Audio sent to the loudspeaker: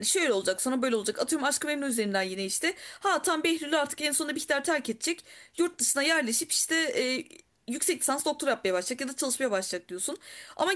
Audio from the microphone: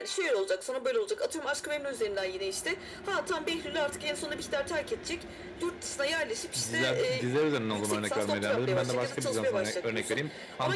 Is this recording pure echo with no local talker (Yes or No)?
No